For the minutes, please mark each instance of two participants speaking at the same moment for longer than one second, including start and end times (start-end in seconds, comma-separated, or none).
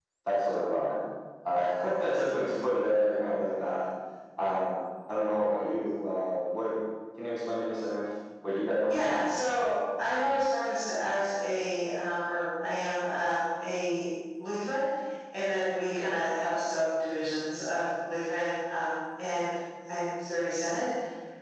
none